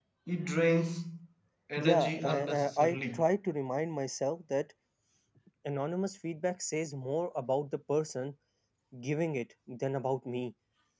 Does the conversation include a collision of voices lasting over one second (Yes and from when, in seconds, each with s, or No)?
Yes, from 1.8 s